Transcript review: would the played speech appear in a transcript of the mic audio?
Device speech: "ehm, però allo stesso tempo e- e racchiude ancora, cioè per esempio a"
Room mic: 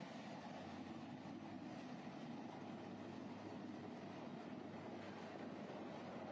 No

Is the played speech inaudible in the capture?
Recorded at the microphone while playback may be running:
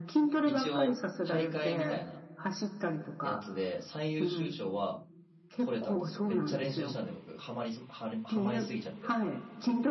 No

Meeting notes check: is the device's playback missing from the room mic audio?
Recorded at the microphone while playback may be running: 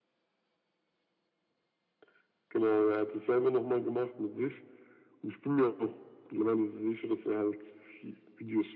No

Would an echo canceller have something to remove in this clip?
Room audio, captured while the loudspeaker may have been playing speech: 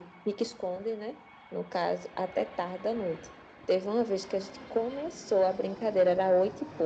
Yes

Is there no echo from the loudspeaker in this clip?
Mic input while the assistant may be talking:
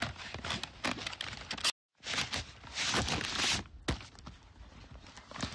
Yes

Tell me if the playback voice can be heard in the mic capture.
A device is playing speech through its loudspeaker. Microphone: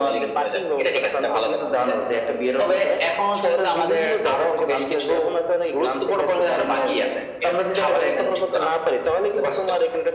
Yes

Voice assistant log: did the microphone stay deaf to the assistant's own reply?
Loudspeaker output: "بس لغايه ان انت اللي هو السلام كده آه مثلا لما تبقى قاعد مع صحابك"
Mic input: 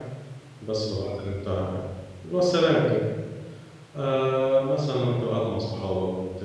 No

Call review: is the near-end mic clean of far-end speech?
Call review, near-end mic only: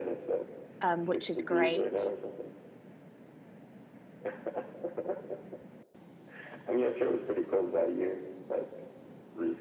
No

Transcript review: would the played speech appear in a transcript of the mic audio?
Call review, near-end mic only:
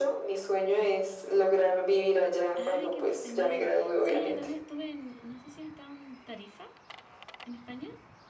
Yes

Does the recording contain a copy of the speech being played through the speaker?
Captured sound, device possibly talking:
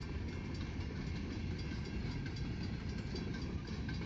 No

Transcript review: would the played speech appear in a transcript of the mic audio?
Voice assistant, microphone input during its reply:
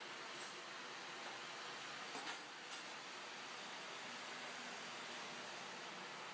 No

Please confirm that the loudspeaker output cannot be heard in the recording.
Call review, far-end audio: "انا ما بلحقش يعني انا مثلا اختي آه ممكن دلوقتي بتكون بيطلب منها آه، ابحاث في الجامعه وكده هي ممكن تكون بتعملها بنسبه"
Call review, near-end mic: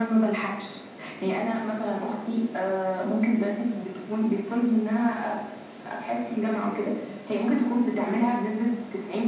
No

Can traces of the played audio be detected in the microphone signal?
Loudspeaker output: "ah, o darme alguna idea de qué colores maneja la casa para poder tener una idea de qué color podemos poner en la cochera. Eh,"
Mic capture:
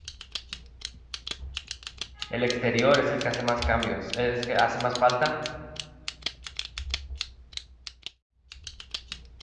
No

